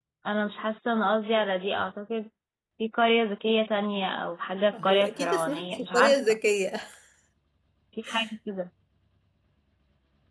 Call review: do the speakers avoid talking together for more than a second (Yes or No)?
No